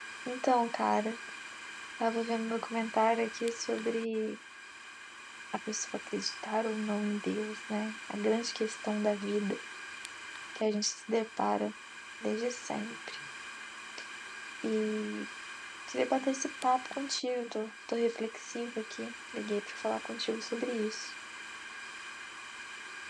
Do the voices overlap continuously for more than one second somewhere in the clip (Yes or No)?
No